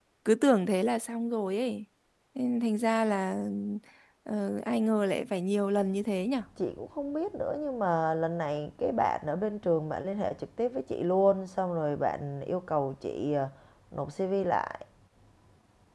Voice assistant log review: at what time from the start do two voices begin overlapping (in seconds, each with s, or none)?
none